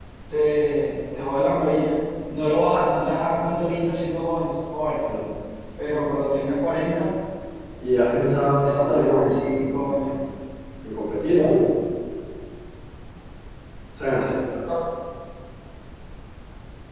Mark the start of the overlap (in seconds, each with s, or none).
8.7 s